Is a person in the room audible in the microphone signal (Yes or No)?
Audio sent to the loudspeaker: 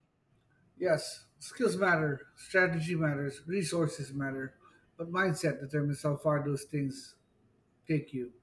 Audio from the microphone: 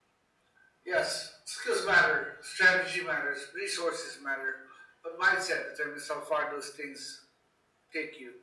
No